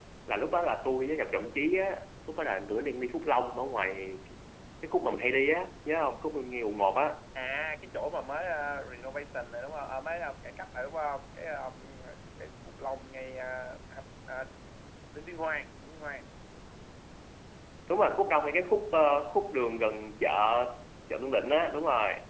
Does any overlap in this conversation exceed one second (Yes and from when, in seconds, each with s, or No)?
No